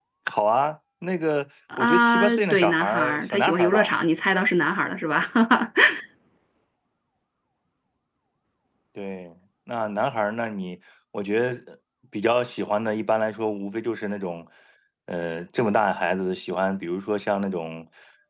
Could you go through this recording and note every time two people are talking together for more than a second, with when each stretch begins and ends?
1.8-3.9

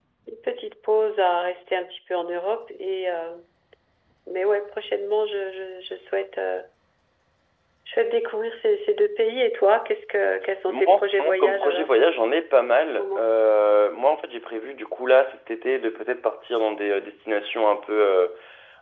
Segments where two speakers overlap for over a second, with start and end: 10.7-11.9

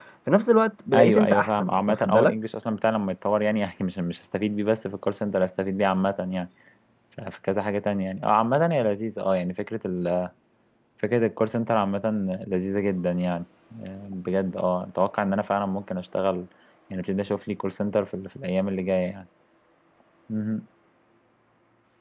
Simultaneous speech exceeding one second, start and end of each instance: 0.9-2.4

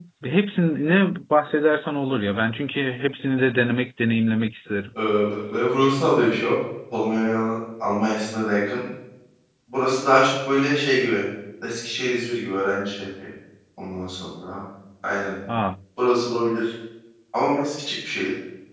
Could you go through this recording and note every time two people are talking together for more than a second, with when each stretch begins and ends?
none

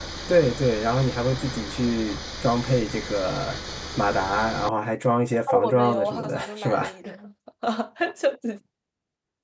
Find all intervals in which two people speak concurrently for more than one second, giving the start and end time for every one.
5.6-6.8

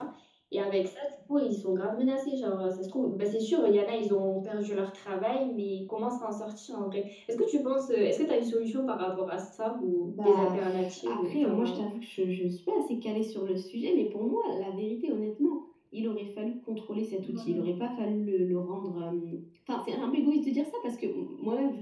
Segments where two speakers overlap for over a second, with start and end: 10.1-11.8

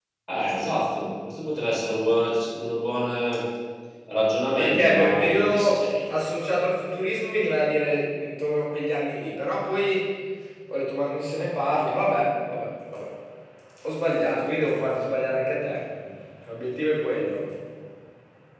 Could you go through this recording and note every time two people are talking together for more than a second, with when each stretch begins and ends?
4.6-5.8

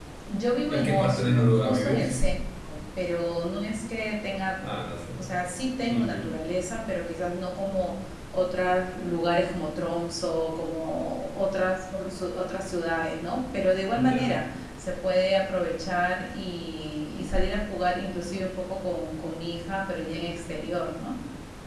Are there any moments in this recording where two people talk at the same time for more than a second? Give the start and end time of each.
0.7-2.2

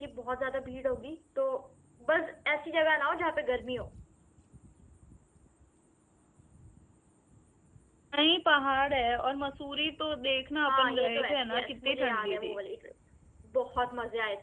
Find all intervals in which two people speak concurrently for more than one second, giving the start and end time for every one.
10.7-12.6

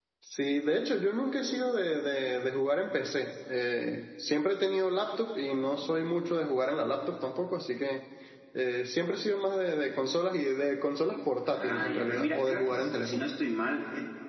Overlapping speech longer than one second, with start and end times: 11.6-13.3

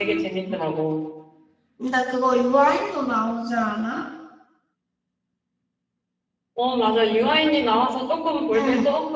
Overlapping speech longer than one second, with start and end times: none

